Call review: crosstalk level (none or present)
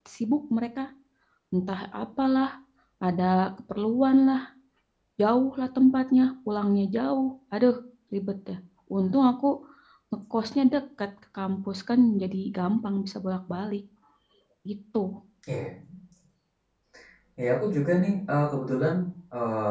none